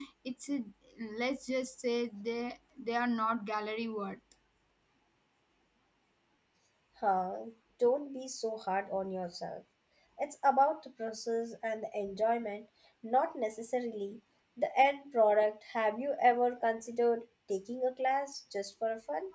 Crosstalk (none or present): none